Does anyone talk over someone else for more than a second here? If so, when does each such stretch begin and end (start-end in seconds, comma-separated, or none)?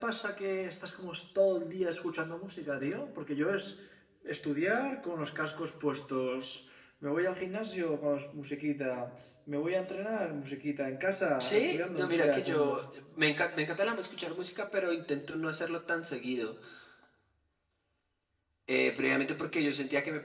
11.4-12.7